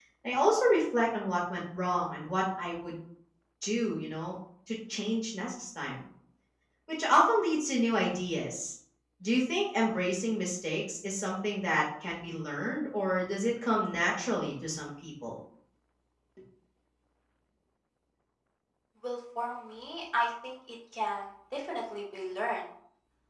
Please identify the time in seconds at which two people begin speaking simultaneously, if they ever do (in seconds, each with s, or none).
none